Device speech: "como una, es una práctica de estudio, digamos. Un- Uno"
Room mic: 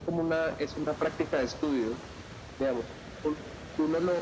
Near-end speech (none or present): none